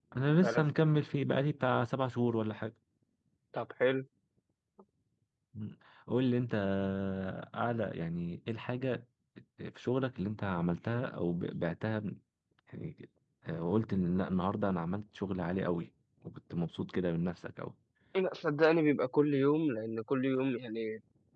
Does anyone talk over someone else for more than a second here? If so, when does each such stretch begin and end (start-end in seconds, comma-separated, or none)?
none